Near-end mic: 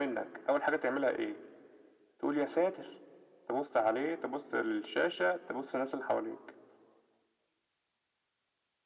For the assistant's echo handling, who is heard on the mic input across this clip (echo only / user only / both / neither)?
echo only